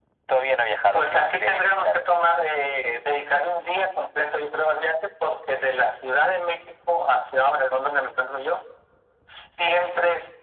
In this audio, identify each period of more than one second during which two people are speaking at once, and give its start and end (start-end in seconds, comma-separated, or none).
0.9-2.2